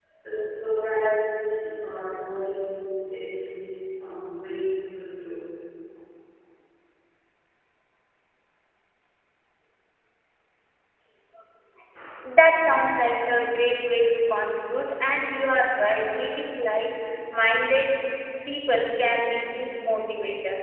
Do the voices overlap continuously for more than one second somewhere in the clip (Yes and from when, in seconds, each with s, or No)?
No